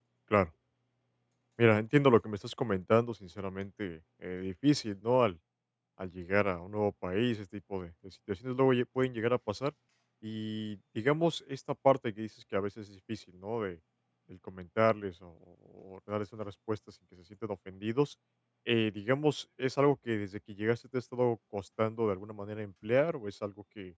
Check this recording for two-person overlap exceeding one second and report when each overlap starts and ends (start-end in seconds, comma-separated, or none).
none